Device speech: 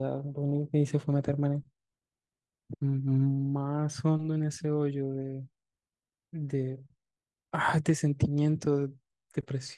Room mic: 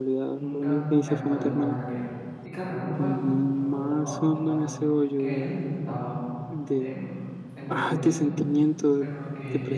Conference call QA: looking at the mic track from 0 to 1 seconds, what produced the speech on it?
both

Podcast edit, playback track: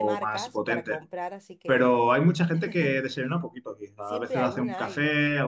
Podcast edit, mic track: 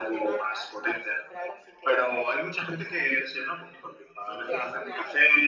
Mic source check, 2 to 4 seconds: echo only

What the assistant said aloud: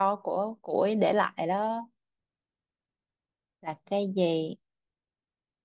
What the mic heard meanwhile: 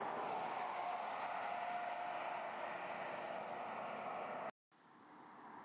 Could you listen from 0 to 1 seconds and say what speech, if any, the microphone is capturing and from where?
neither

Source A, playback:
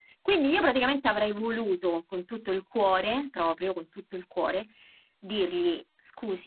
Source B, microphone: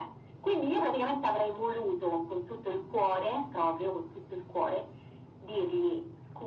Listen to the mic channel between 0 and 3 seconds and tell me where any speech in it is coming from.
echo only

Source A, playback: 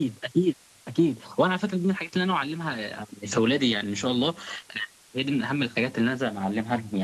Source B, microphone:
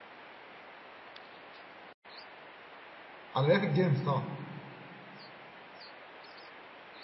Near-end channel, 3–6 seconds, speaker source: user only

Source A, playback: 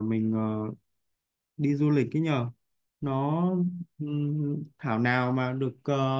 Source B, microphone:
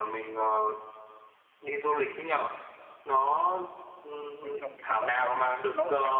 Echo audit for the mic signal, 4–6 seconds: both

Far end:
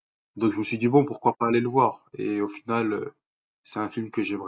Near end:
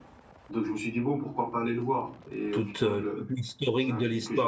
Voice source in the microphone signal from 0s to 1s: echo only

